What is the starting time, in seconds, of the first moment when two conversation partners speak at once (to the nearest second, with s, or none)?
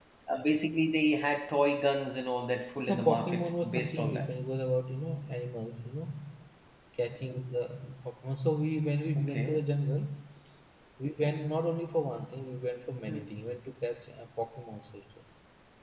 3 s